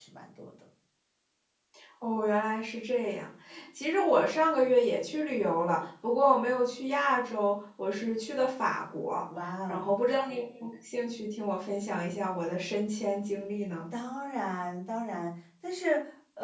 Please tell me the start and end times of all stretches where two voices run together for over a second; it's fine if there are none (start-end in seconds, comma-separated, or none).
none